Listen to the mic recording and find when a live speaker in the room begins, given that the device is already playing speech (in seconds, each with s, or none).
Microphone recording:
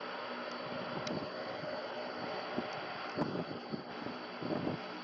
none